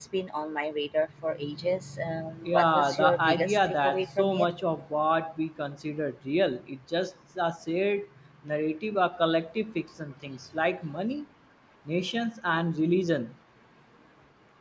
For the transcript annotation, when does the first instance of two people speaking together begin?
2 s

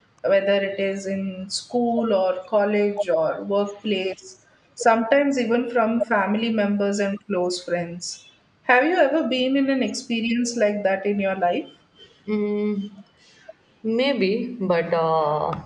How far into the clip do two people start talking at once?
none

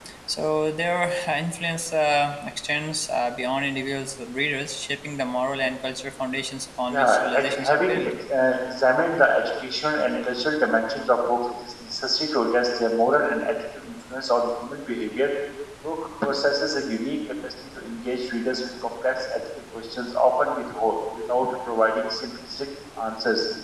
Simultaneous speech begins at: 7 s

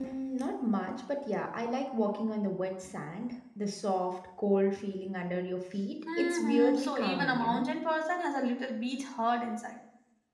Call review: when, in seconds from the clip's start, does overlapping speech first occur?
6 s

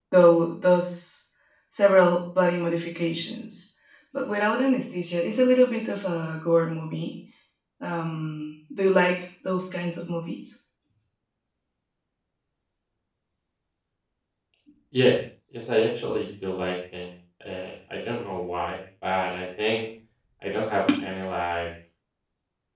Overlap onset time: none

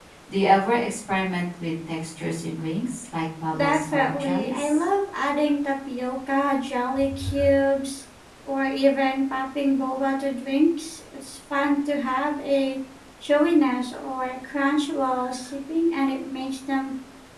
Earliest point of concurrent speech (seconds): 4 s

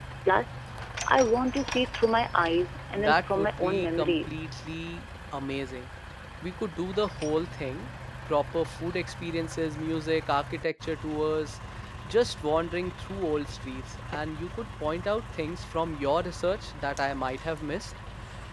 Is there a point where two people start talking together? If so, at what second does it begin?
3 s

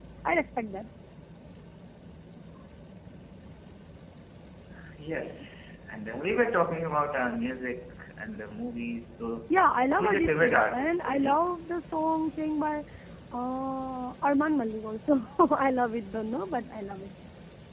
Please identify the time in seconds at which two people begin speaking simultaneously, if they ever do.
10 s

